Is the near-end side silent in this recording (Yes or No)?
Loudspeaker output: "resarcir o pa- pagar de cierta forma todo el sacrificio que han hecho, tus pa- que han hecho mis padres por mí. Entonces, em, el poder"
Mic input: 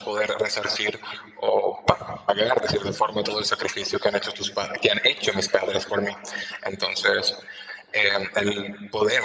Yes